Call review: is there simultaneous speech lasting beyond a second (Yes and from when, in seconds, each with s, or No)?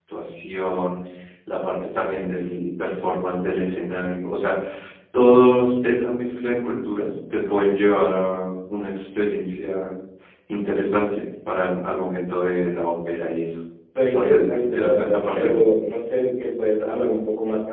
Yes, from 14.1 s